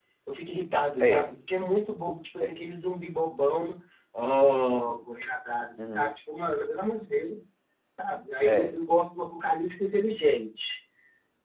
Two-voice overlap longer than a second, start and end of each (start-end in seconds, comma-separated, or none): none